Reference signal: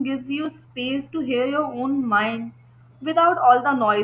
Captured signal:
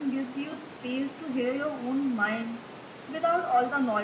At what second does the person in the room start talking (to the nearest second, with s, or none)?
none